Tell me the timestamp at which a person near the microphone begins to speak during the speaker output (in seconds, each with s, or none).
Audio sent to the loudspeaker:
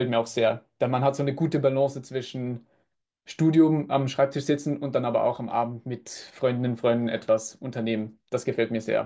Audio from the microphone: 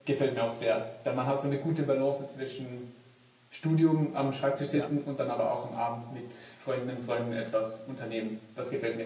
4.7 s